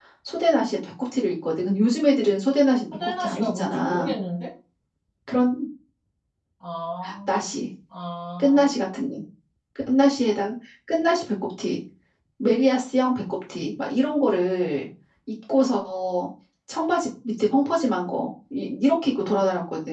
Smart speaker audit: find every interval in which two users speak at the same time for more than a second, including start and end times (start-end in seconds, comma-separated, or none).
2.9-4.1